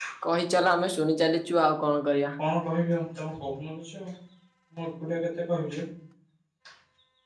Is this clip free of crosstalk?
Yes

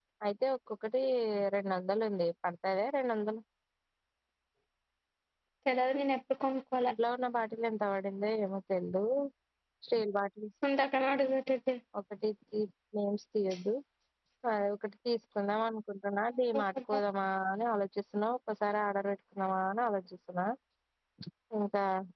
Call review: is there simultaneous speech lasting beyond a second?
No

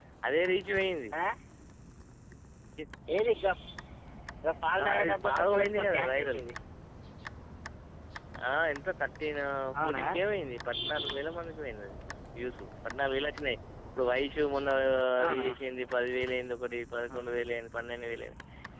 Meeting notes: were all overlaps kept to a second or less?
No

